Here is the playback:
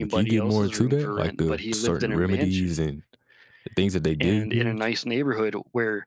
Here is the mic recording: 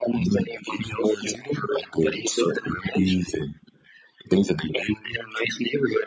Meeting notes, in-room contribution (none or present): none